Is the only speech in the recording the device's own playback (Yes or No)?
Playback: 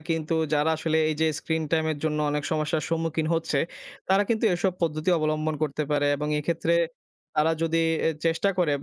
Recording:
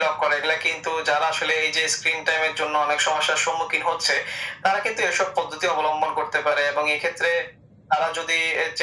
Yes